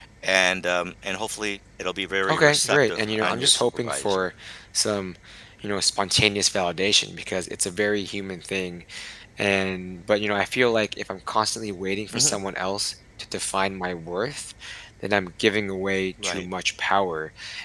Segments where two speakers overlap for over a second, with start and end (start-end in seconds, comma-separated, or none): 2.3-4.2